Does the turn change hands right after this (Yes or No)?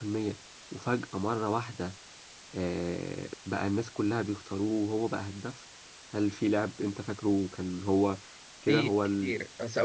Yes